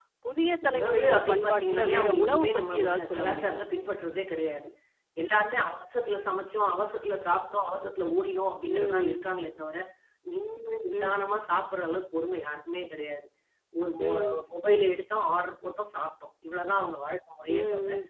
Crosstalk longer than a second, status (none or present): present